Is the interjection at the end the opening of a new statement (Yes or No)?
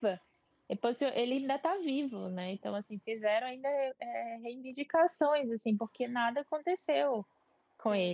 Yes